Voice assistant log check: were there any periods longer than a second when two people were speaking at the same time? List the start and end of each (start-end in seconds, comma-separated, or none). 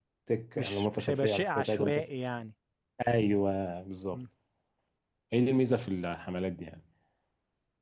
0.6-2.0